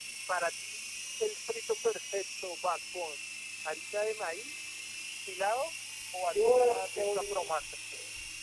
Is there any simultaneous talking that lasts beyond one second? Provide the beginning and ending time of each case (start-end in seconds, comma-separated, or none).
6.2-7.6